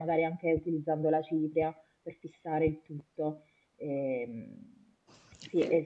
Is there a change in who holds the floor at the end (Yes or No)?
No